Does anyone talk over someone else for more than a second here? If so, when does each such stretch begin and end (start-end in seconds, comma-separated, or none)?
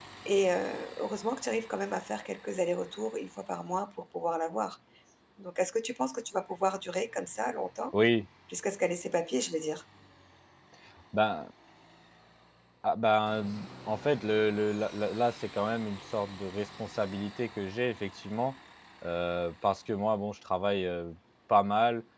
none